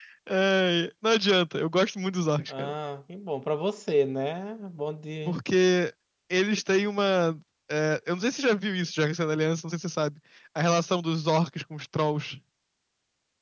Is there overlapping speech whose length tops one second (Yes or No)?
No